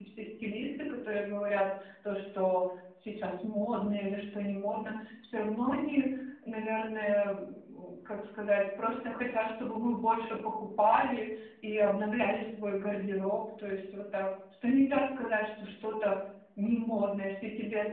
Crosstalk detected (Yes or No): No